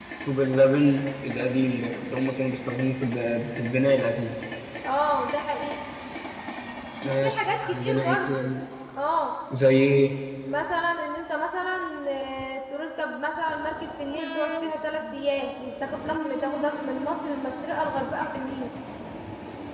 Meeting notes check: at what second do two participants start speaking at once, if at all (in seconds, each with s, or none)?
7.1 s